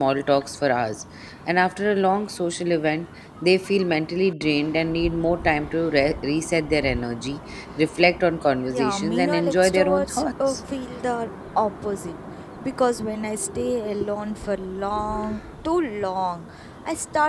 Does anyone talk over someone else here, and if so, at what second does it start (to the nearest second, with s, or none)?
9 s